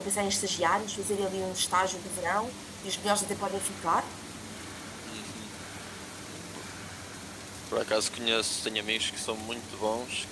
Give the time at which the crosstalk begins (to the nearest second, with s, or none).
none